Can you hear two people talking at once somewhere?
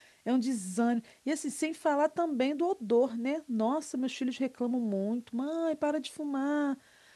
No

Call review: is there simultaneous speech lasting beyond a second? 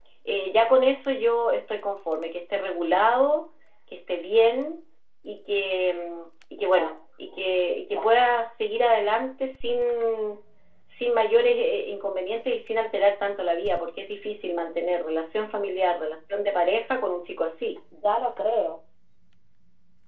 No

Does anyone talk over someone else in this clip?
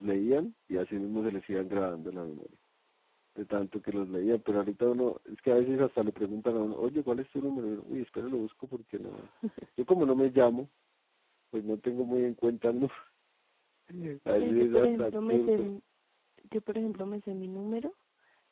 Yes, from 14.3 s

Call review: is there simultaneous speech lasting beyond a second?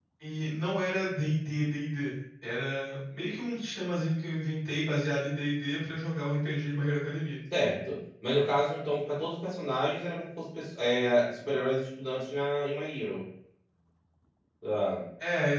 No

